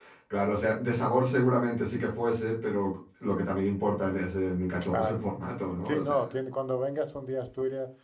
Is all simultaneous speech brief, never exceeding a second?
Yes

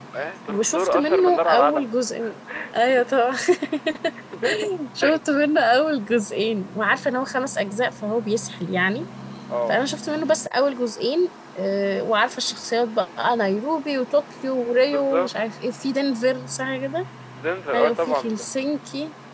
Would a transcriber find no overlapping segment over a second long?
No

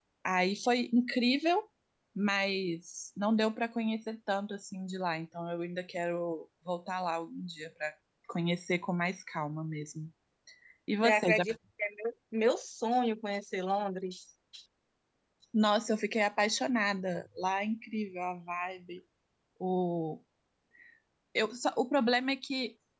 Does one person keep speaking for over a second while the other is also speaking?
No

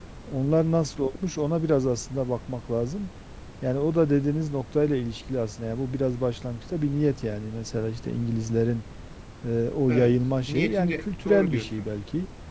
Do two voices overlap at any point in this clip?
Yes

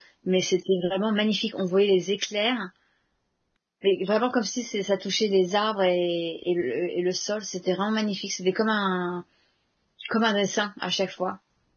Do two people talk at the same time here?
No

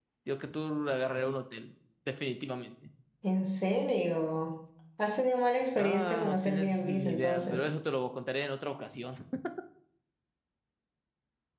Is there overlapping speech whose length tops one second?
Yes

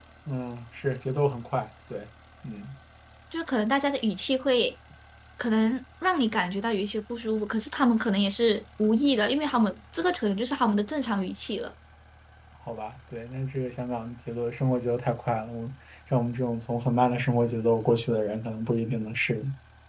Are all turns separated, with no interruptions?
Yes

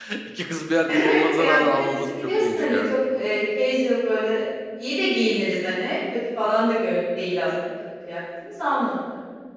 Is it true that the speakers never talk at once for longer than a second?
No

